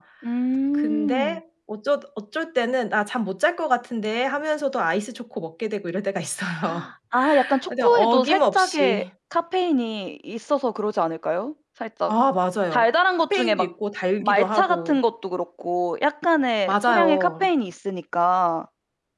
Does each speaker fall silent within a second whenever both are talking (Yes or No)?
No